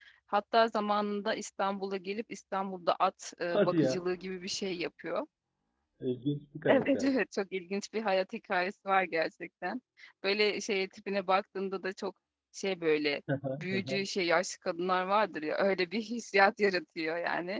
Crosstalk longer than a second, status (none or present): none